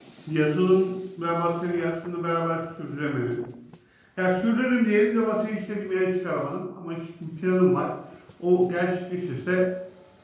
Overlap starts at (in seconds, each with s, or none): none